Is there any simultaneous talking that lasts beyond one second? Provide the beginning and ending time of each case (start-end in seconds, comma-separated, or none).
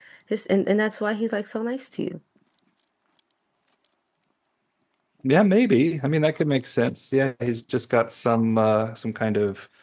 none